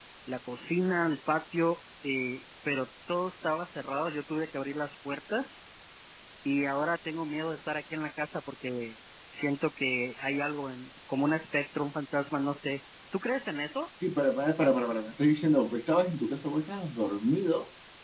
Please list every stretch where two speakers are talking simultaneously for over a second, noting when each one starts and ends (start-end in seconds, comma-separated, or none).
none